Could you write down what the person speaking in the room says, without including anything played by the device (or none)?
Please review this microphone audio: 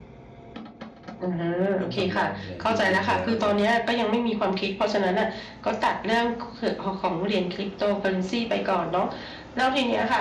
เงินสำรองเนี่ย จริง ๆ แล้วเนี่ยครับ